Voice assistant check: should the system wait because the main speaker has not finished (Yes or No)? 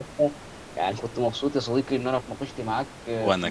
Yes